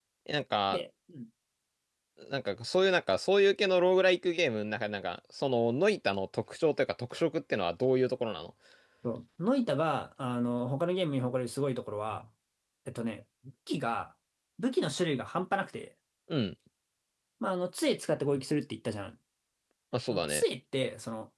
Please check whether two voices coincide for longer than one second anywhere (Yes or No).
No